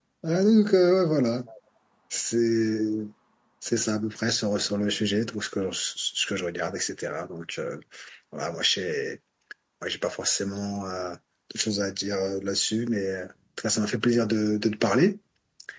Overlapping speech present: No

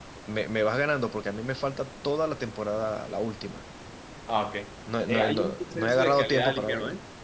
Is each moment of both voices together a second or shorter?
No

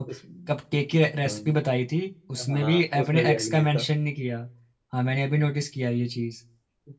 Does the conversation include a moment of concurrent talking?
Yes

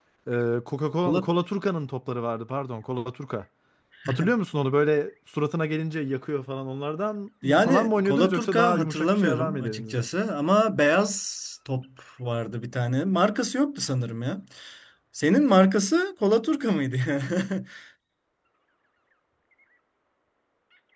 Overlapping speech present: Yes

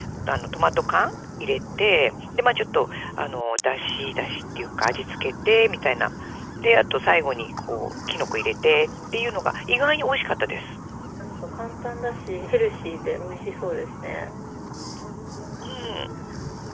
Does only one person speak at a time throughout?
Yes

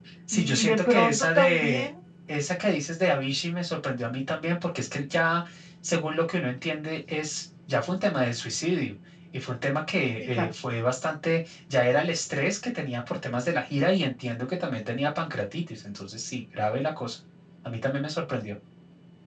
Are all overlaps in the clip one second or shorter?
No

